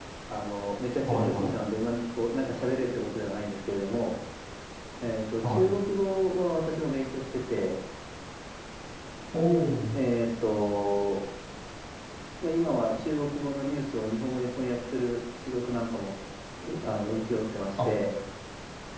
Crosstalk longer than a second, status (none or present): none